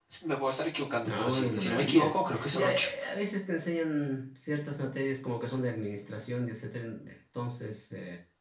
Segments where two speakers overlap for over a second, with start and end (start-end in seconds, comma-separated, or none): 1.0-2.6